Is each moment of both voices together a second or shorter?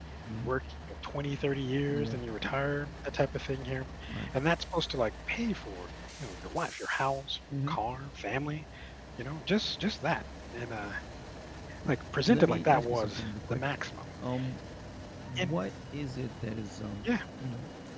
No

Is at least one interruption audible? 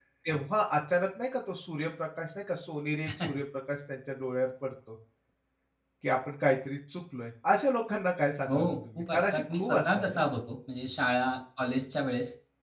Yes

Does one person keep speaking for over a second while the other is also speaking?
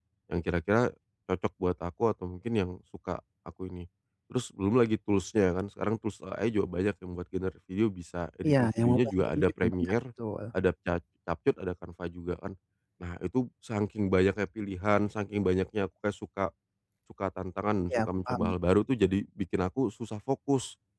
Yes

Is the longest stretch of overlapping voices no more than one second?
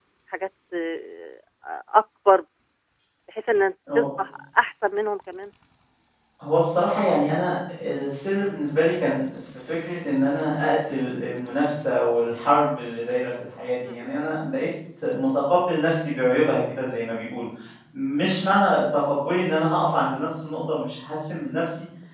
Yes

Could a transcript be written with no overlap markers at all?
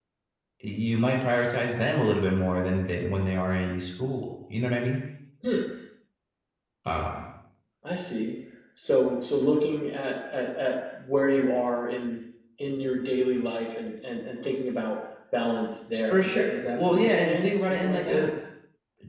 No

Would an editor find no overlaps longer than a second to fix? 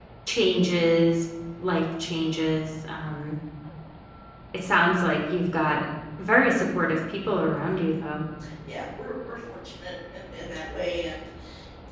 Yes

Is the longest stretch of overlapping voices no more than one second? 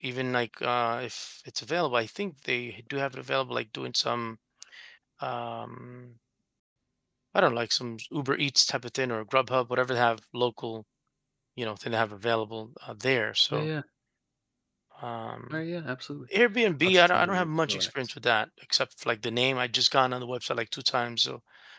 No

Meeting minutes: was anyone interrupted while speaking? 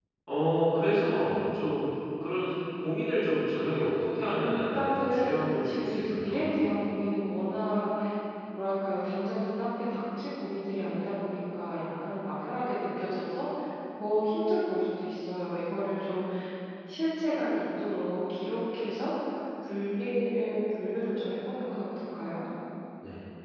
Yes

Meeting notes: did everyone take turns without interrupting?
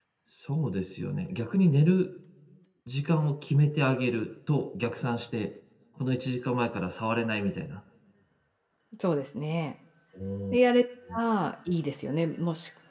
Yes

